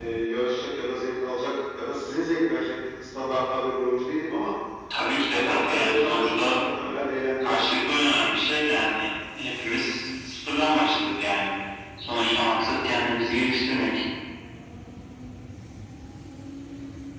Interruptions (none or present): present